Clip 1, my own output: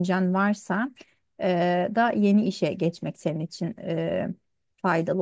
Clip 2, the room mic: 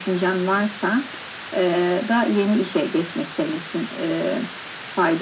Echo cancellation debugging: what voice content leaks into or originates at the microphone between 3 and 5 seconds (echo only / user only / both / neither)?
echo only